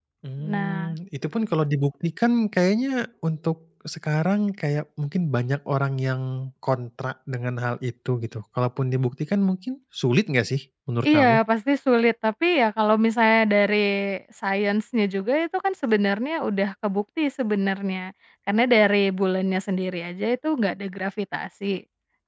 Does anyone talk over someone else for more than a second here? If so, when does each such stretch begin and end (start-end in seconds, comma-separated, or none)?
none